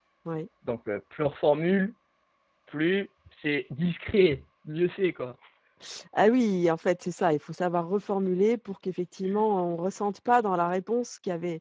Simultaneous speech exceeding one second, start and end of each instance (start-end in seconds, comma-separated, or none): none